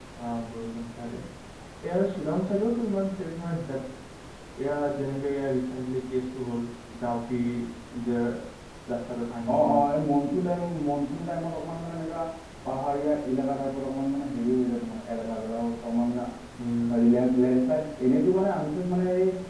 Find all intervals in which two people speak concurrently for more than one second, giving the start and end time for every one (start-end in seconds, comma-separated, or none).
none